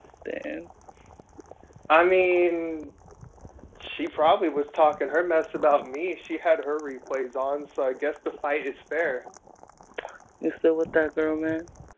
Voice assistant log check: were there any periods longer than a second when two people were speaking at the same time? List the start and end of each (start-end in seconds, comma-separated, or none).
none